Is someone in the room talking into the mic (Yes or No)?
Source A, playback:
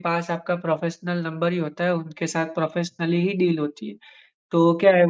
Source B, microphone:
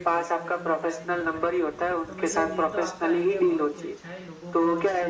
Yes